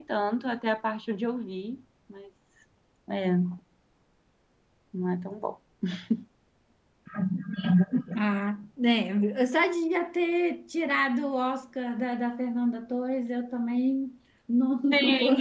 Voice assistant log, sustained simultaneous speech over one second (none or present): none